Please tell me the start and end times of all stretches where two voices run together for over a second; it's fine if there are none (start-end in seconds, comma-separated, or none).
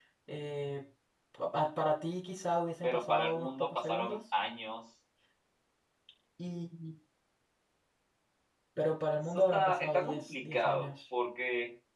2.8-4.2, 9.3-10.9